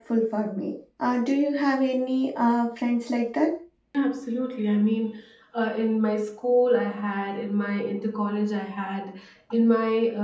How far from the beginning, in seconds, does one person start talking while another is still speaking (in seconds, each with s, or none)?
none